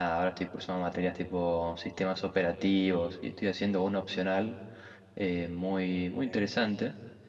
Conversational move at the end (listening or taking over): listening